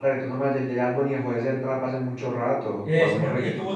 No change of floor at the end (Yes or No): No